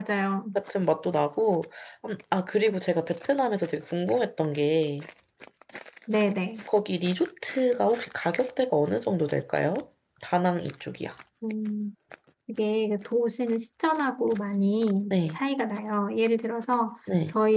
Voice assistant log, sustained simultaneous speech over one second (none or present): none